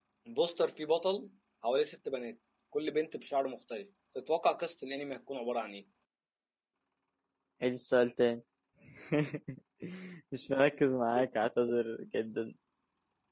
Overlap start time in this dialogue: none

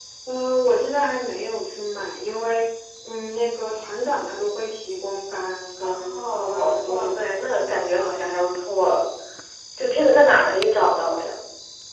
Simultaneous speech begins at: 5.8 s

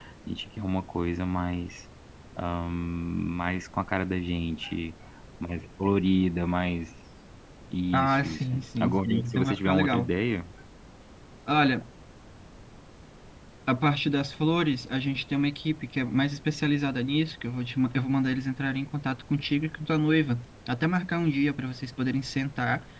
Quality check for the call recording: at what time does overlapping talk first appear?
7.9 s

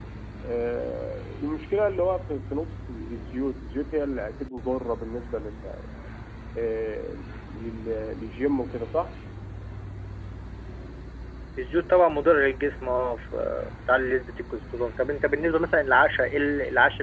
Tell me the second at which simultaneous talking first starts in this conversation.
none

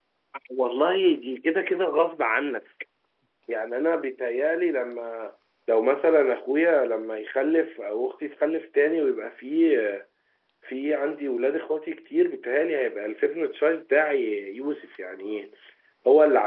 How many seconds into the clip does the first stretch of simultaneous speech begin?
none

